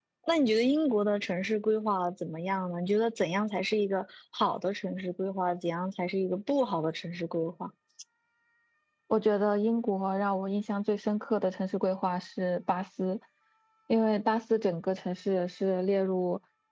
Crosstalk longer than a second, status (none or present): none